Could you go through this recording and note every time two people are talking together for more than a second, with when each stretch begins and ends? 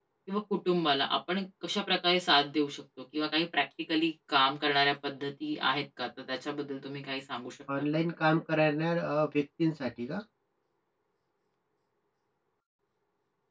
none

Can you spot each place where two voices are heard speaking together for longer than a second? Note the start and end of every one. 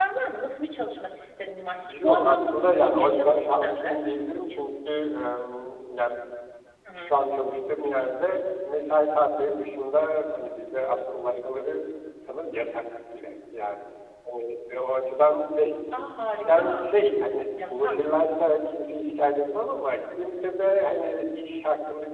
1.9-4.0

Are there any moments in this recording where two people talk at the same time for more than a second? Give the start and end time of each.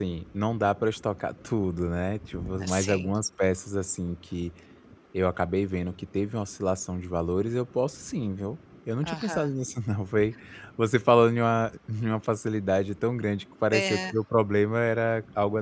none

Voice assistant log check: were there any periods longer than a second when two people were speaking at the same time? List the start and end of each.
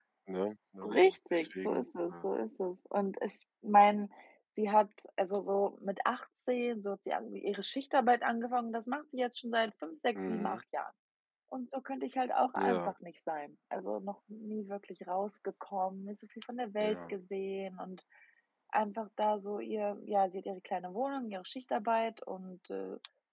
0.8-2.3

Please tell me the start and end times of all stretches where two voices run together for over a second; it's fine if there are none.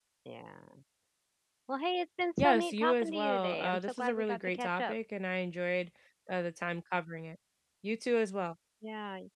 2.4-4.9

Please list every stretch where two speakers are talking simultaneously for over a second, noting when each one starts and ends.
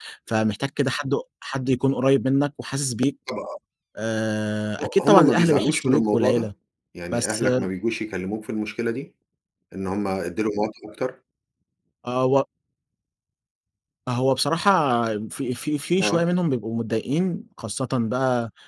4.8-6.5

